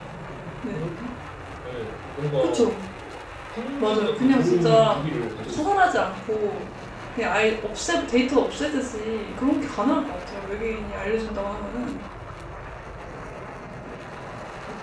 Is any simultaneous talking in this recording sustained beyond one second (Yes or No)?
Yes